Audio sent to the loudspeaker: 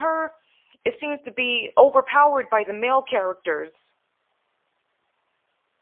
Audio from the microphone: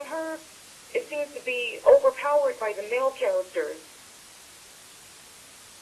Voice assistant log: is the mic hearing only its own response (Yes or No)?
Yes